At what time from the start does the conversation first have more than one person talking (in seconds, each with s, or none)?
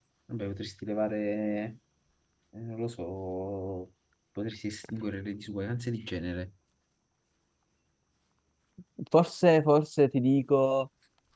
none